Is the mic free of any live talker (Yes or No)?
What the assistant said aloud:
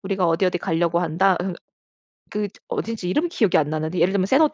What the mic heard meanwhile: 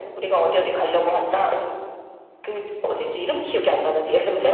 Yes